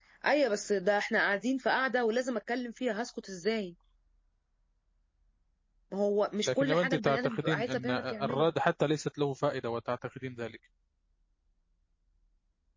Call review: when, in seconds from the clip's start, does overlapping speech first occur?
6.5 s

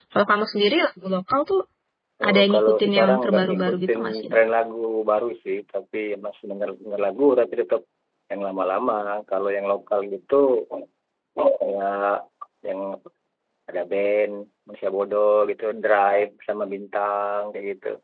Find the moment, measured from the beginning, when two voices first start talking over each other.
2.3 s

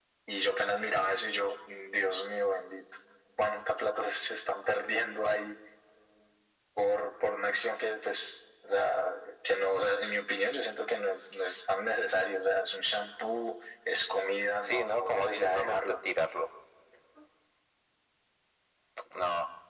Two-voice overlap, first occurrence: 14.6 s

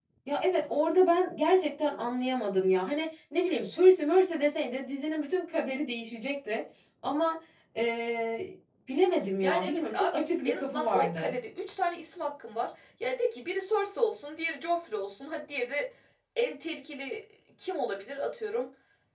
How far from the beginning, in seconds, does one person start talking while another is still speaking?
9.4 s

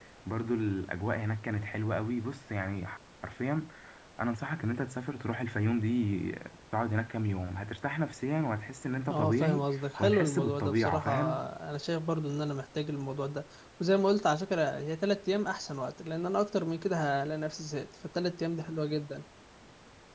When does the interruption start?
9.1 s

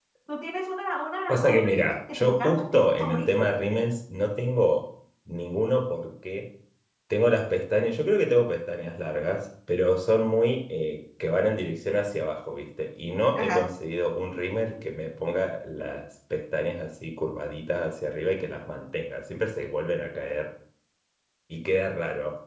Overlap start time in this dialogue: 1.3 s

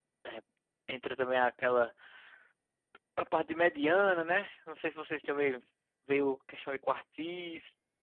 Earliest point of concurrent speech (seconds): none

